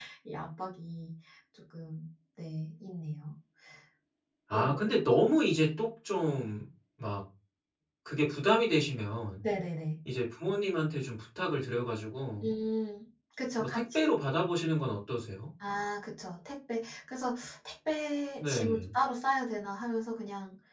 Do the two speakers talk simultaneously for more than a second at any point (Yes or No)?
No